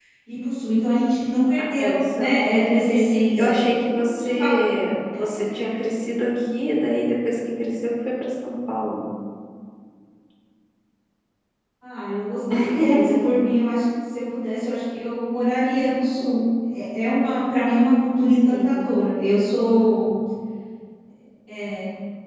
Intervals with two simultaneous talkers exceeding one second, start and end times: 1.6-4.3

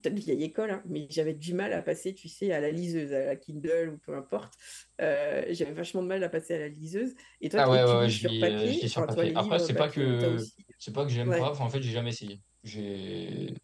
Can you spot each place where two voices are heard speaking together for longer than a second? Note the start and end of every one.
7.6-10.5

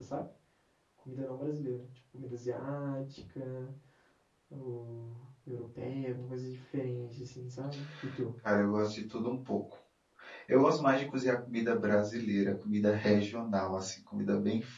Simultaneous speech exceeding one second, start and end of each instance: none

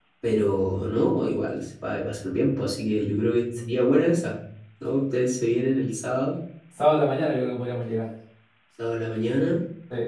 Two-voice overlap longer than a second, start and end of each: none

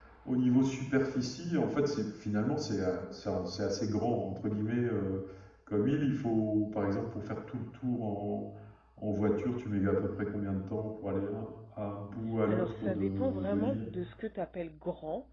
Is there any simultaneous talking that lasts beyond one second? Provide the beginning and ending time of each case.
12.5-13.8

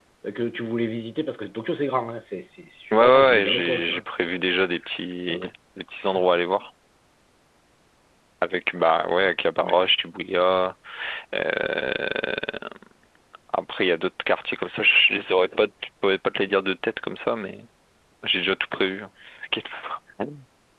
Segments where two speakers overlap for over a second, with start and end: 3.0-4.3

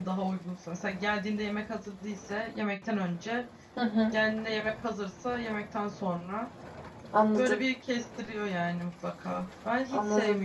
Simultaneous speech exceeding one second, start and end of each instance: none

